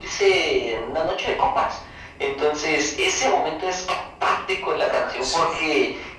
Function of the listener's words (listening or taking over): listening